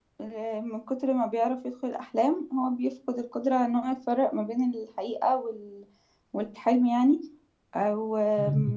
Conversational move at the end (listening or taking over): listening